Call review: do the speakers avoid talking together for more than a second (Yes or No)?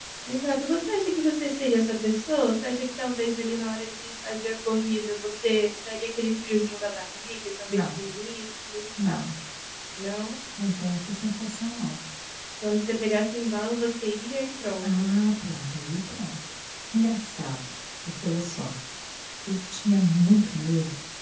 Yes